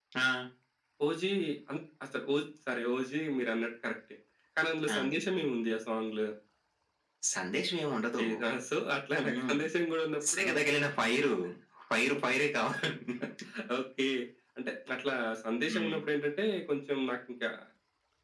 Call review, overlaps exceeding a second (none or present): none